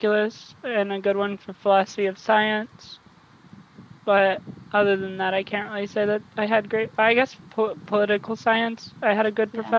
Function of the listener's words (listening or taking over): listening